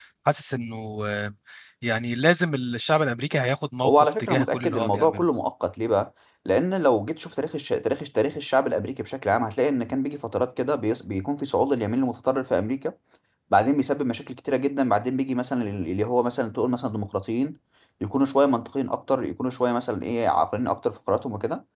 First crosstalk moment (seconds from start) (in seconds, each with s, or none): 3.8 s